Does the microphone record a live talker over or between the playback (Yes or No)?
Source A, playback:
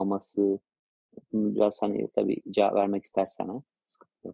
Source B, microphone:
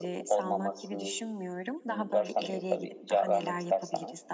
Yes